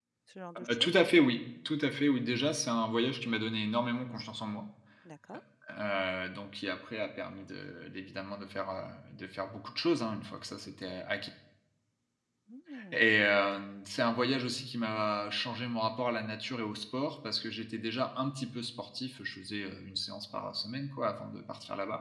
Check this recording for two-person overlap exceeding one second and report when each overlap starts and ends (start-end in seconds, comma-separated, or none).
none